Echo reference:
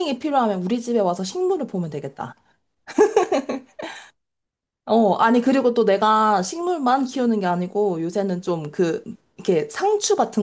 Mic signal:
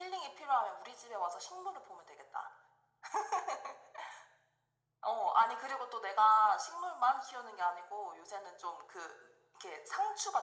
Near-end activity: none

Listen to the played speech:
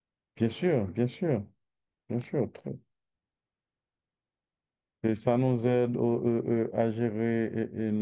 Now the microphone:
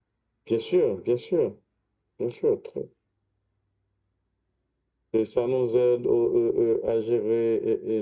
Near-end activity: none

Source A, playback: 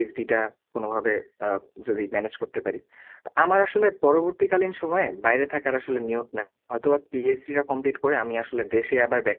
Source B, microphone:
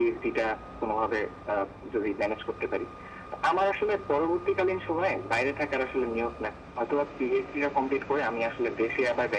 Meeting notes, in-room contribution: none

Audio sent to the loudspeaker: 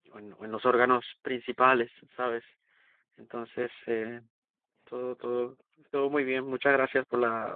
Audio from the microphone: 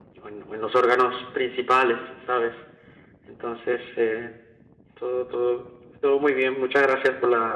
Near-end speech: none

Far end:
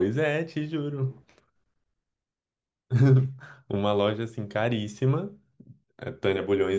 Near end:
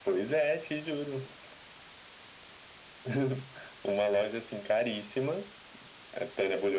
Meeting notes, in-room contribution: none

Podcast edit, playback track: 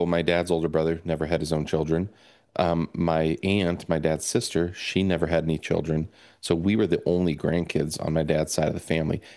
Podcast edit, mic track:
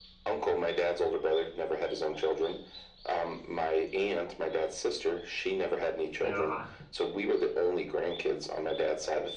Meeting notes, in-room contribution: present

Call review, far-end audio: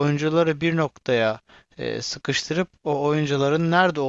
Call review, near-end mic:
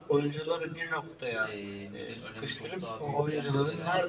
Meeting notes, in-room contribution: present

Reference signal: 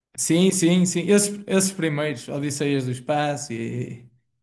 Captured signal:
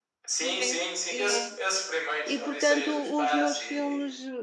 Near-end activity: present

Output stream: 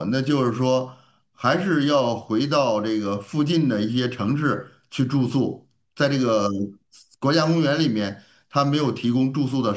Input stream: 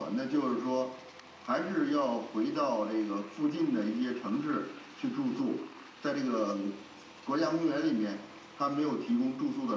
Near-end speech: none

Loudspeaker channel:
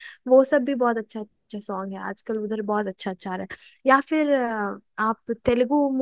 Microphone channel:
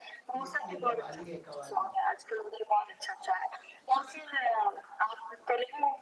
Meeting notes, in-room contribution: present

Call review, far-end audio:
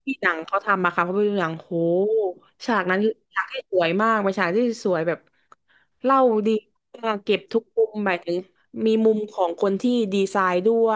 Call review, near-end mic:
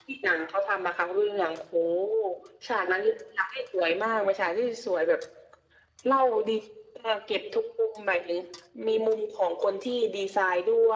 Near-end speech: none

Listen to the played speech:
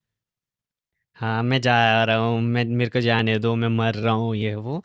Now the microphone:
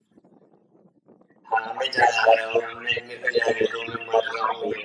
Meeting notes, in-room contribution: none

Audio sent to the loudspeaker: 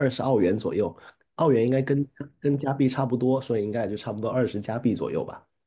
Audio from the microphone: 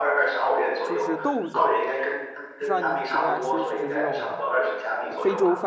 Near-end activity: present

